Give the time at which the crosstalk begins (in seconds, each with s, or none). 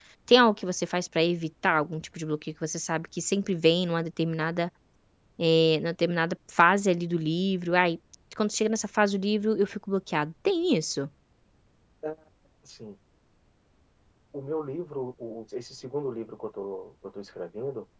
none